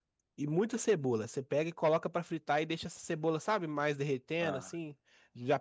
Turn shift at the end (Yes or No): No